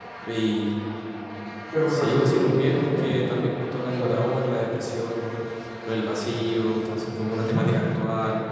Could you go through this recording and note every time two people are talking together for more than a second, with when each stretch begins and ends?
1.9-3.2

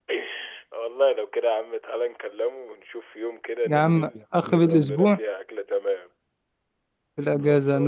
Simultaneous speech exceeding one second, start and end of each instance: 3.7-5.2

